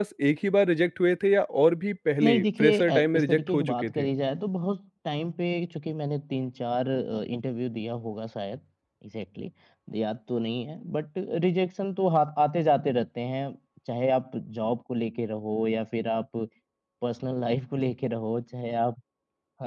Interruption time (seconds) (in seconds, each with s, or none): 2.2 s